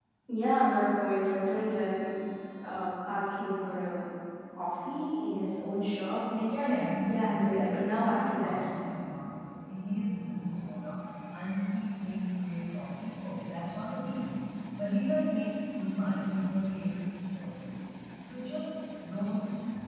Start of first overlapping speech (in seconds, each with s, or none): 6.5 s